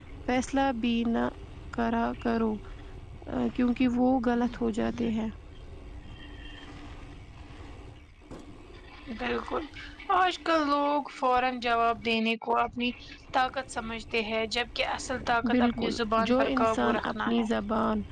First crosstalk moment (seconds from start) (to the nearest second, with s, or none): 15 s